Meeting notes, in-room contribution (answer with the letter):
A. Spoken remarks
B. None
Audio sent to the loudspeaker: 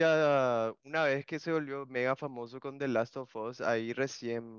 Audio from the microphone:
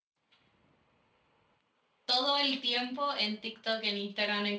A